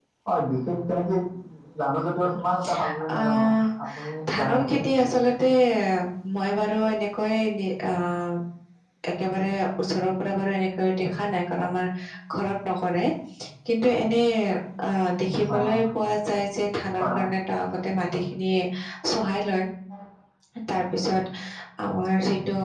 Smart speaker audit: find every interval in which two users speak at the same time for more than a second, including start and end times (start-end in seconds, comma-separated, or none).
none